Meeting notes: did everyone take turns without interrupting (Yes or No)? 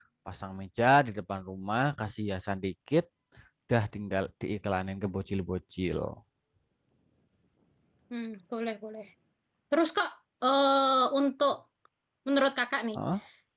Yes